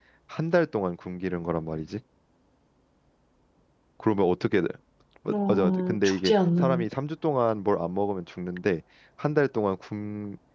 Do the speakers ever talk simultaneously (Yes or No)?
Yes